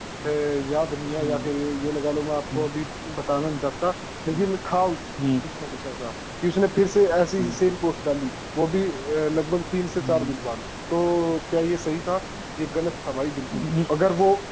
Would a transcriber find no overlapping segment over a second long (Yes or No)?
Yes